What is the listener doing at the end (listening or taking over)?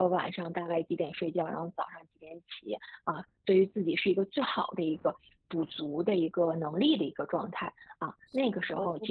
taking over